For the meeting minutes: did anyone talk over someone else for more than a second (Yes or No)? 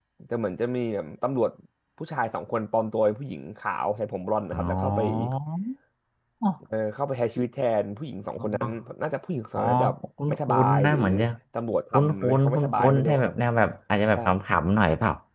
Yes